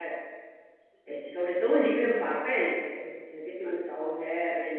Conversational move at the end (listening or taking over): listening